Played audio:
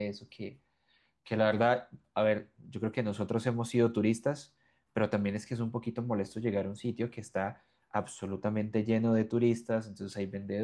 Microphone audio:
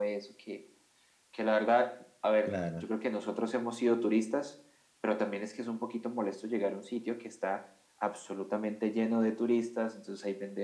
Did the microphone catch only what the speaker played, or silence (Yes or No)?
No